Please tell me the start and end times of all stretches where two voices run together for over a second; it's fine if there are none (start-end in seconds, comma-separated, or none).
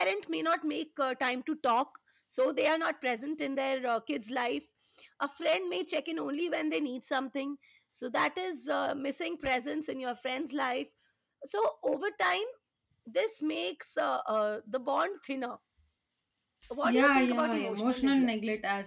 17.0-18.3